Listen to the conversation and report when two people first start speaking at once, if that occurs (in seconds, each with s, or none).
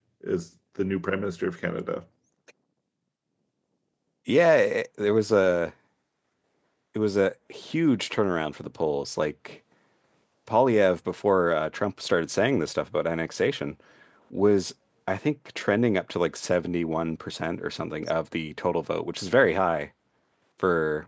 none